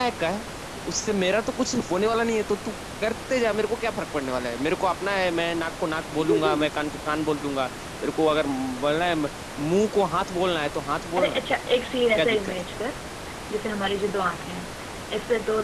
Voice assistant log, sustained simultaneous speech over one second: none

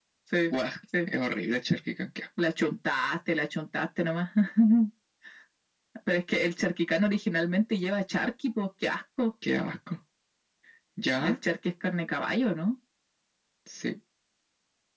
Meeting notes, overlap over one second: none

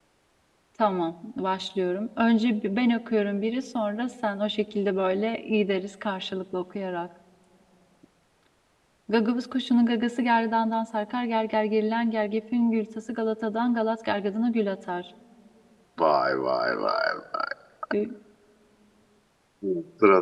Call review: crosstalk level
none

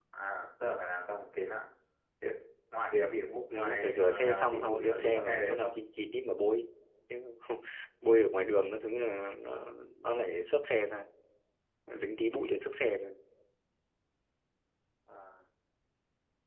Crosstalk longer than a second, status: present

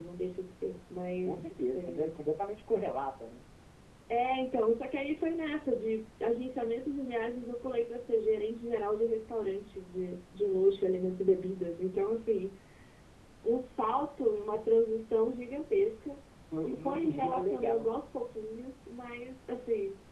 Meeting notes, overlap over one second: present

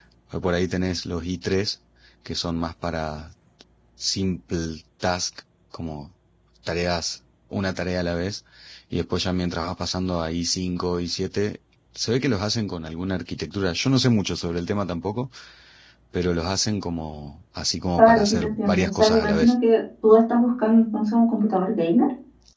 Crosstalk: present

